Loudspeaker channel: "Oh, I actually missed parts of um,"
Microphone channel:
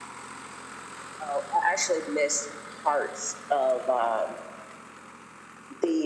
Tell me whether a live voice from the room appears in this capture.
No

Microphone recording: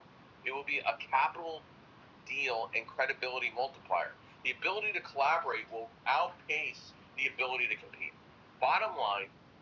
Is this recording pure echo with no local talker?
Yes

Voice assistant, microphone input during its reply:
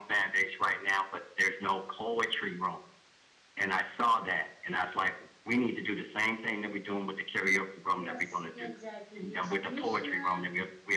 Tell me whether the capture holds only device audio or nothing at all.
No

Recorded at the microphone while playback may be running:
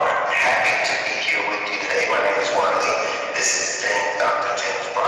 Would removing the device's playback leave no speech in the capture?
Yes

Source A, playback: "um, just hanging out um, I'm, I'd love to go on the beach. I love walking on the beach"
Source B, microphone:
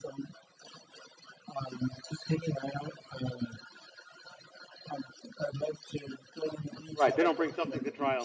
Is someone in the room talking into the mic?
Yes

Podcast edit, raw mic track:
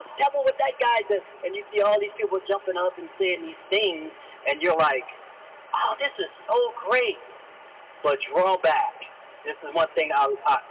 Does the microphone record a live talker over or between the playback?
No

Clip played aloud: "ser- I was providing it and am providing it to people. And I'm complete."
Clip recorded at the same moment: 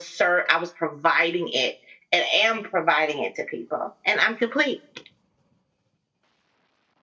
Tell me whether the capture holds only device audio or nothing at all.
Yes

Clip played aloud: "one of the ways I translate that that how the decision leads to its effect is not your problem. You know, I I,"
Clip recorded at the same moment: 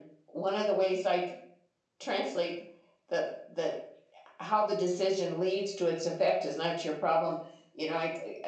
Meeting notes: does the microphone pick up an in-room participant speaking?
No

